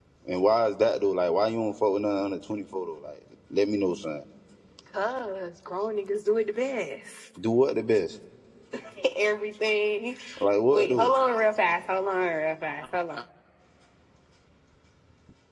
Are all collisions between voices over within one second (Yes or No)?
Yes